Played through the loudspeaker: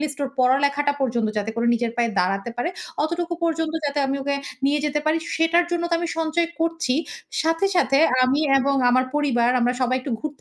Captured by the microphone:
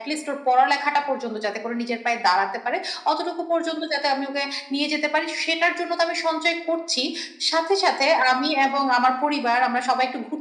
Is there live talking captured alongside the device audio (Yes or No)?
No